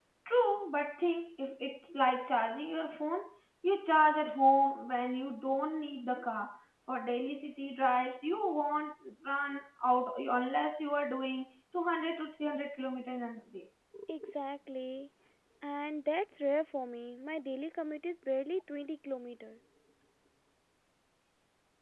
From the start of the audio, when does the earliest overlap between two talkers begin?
none

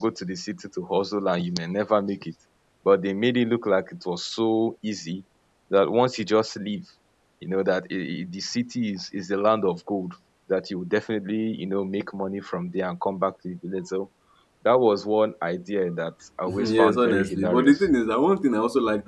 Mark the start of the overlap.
16.5 s

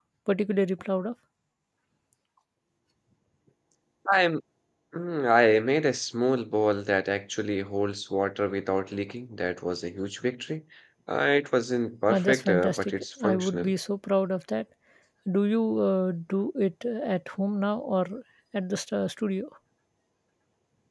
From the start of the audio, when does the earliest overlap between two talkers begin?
12.1 s

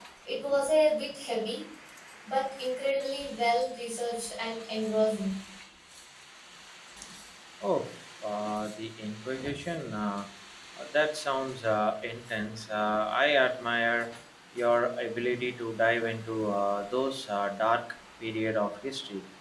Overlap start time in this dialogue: none

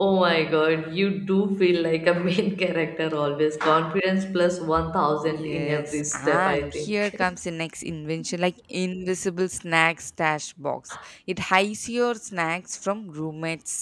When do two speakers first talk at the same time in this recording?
5.2 s

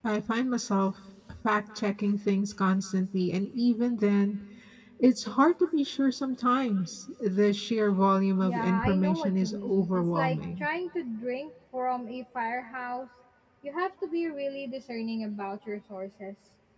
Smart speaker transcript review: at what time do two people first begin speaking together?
8.4 s

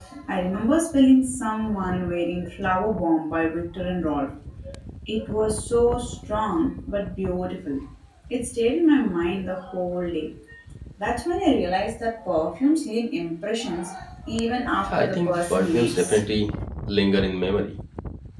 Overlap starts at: 14.9 s

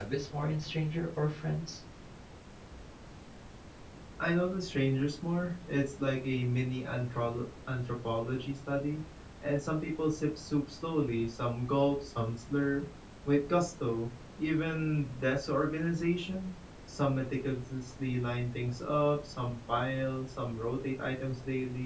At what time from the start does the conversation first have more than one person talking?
none

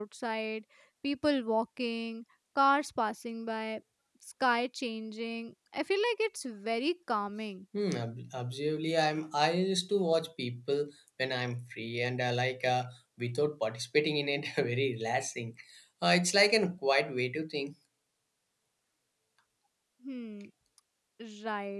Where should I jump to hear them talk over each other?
none

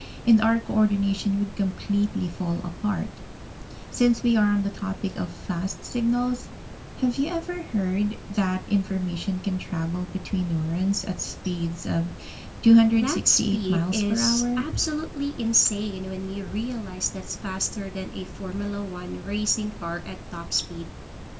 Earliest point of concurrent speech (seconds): 12.9 s

